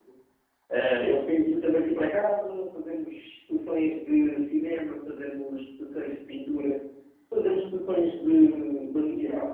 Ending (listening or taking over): listening